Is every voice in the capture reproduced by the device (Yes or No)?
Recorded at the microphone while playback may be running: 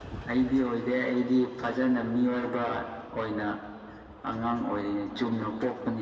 Yes